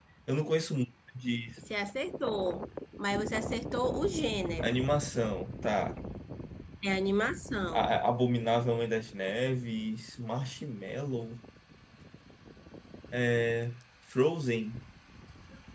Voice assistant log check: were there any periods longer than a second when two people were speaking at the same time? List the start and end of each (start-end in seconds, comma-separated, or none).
none